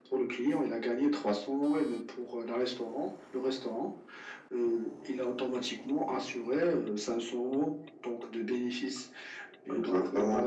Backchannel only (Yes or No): Yes